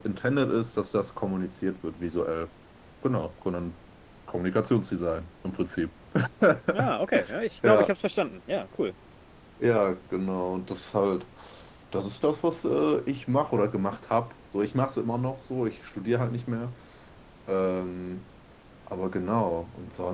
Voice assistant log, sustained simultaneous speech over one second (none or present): none